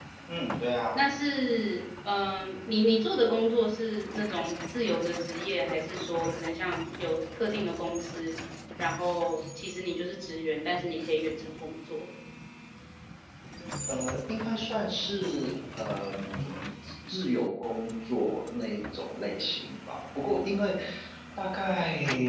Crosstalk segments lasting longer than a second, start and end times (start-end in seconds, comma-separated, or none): none